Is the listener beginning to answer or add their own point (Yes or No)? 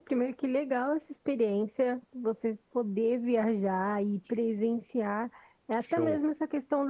No